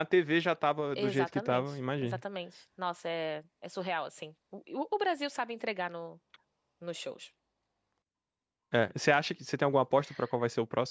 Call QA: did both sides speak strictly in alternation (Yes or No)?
No